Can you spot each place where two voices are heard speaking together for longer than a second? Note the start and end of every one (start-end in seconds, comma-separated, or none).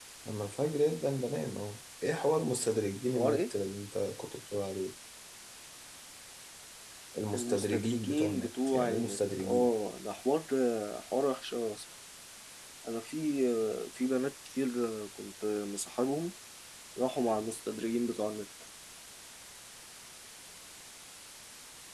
7.3-9.7